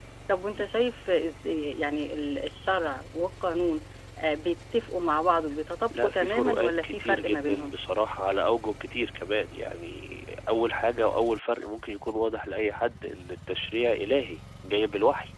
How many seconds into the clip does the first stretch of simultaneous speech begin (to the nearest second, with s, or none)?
6 s